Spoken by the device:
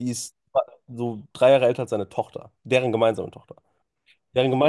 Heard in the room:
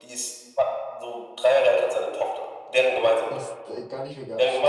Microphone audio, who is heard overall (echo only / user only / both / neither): both